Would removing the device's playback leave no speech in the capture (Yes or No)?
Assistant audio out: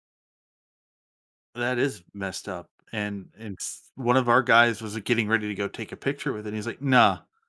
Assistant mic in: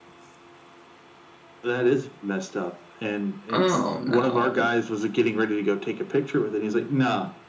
No